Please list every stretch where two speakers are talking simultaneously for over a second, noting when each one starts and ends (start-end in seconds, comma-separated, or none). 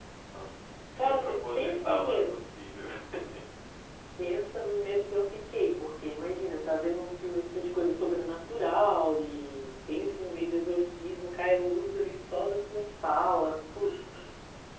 1.1-2.4